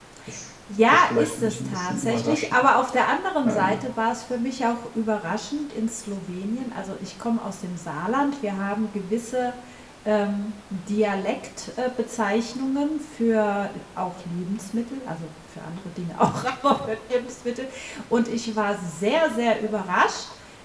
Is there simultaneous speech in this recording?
Yes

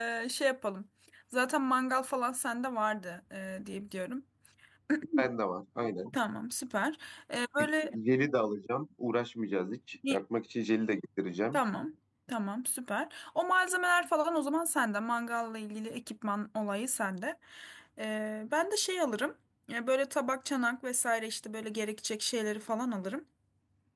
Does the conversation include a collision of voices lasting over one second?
No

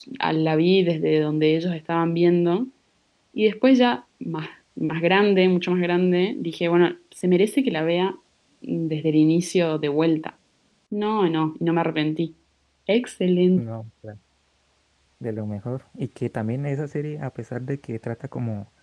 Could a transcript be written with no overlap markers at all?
Yes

